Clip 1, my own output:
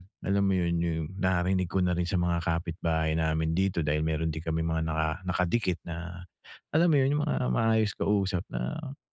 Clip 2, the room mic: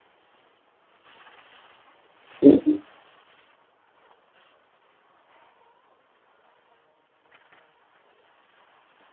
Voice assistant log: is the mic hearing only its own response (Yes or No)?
No